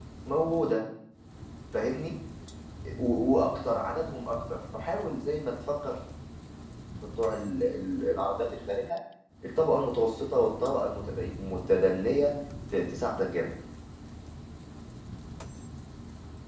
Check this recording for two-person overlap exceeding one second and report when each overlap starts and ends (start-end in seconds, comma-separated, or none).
none